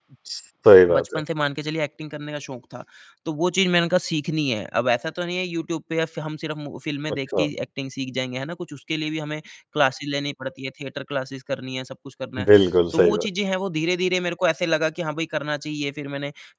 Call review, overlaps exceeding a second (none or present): none